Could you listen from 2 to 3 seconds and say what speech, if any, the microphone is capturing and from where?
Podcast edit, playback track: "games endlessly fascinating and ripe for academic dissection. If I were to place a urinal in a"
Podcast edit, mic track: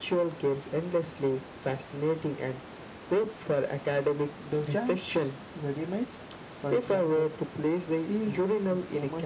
echo only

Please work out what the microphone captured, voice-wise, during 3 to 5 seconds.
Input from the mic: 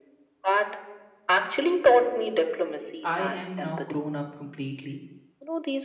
both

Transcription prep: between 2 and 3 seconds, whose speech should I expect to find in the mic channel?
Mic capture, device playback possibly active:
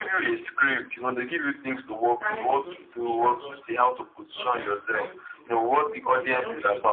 both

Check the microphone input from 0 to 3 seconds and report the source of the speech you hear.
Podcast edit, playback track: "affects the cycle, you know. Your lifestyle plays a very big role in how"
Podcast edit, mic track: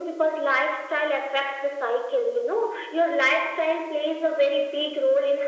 echo only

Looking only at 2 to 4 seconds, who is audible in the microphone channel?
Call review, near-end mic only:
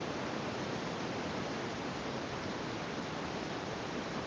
neither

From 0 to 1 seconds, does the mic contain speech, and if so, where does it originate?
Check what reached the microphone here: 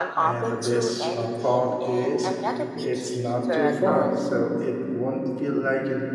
both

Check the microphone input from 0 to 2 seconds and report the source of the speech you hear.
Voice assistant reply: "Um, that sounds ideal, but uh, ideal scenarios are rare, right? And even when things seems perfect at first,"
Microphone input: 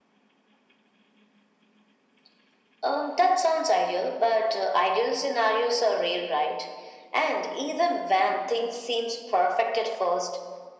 neither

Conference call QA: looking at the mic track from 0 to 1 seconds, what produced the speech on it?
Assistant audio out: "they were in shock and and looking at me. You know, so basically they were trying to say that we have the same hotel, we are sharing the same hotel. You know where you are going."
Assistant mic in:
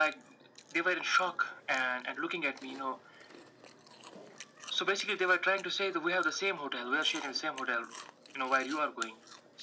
echo only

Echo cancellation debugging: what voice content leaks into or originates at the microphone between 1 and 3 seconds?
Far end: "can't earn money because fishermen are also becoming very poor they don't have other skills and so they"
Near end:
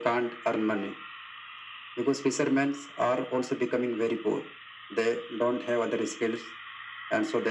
echo only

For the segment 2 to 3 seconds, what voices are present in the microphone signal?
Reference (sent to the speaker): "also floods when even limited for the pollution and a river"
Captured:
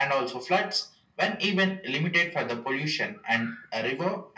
echo only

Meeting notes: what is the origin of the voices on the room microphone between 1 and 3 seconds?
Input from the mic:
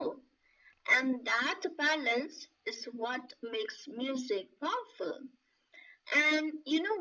echo only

